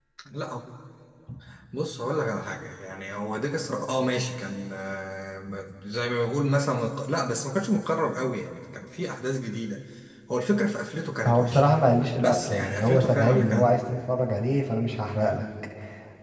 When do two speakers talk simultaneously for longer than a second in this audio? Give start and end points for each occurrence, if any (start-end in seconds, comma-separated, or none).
12.2-13.7